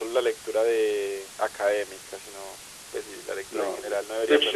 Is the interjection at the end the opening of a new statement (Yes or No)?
Yes